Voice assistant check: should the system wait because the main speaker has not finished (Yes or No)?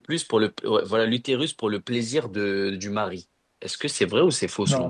No